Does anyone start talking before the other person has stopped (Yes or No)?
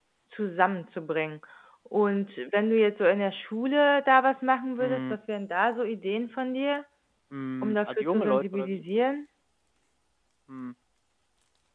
Yes